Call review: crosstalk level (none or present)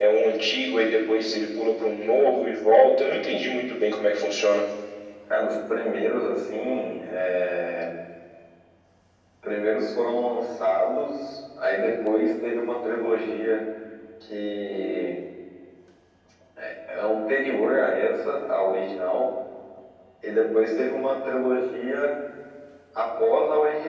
none